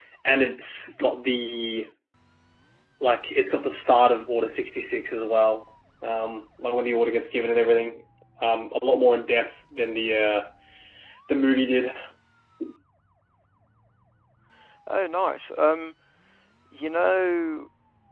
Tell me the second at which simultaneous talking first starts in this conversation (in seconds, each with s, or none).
none